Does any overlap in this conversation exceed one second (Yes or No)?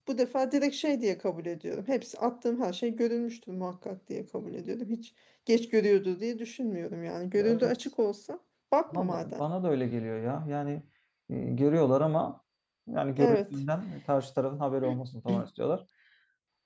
No